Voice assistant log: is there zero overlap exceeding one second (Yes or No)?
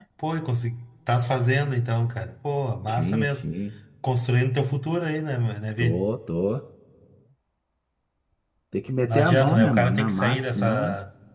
No